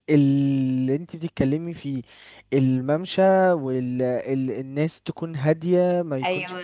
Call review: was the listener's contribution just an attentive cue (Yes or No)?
Yes